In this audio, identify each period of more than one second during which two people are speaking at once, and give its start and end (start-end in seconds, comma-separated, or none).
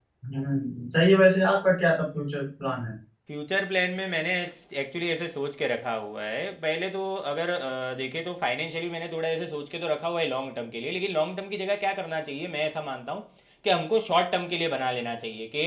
none